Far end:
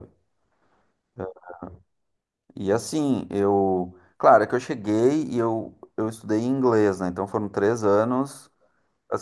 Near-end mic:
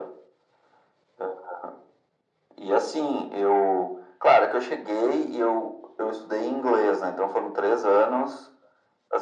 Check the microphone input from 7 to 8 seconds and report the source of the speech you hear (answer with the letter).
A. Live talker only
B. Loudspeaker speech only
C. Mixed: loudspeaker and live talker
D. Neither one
B